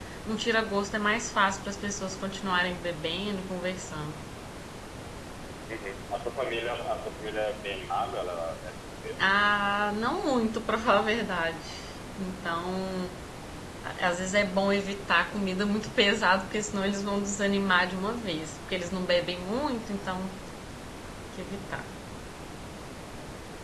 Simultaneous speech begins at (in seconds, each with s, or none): none